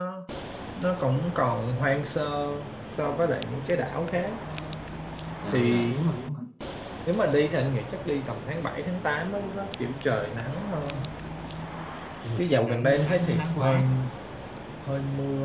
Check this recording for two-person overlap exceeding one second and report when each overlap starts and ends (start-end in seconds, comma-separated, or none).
12.4-13.8